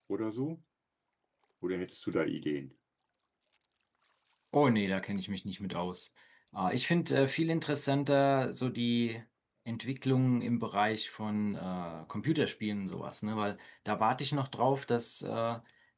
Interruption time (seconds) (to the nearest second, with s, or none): none